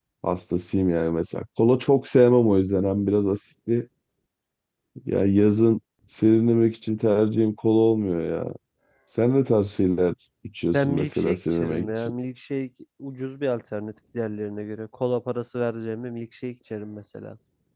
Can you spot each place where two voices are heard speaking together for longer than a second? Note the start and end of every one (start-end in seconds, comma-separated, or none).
10.7-12.1